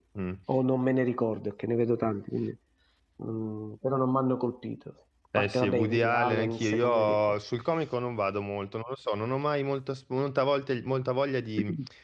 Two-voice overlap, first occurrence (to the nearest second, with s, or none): 5 s